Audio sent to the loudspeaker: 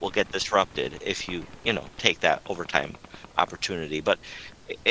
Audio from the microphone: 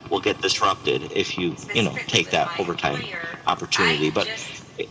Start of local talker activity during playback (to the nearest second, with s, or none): 2 s